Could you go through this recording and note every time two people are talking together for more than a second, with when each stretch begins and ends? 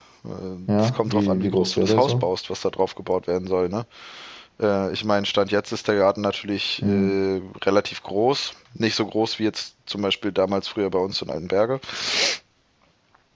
0.8-2.3

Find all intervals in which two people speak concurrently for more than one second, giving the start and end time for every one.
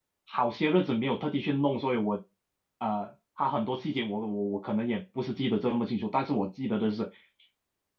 none

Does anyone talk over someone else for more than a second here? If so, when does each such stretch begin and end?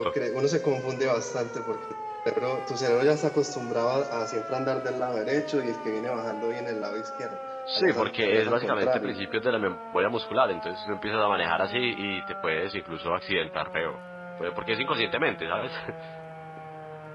7.8-9.1

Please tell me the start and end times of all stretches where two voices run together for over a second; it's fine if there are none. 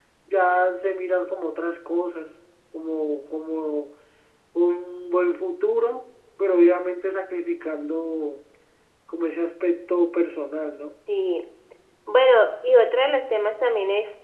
none

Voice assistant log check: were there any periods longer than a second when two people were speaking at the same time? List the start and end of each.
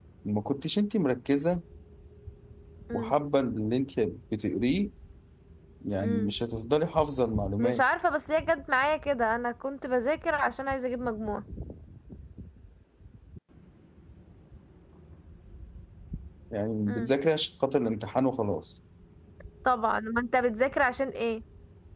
none

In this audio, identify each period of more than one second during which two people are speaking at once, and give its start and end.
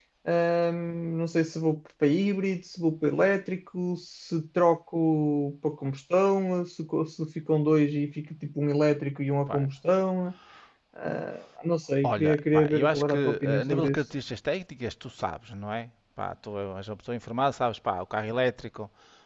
12.0-14.0

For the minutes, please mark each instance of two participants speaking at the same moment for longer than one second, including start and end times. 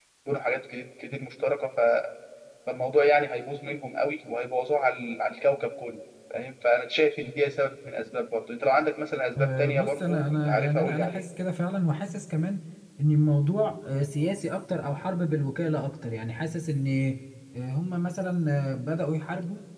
9.4-11.2

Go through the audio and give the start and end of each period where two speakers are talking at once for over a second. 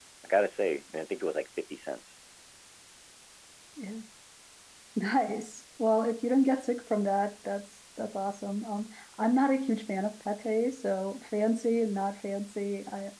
none

